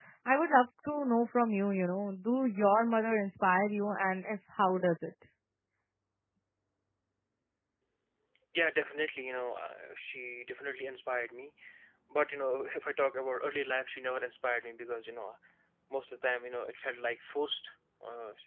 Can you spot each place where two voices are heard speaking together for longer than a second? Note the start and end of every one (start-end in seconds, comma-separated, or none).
none